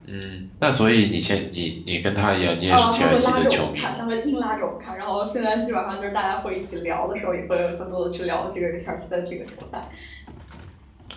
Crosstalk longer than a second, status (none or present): present